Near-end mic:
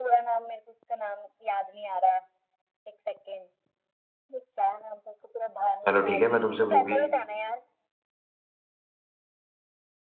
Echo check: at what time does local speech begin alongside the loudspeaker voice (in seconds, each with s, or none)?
5.9 s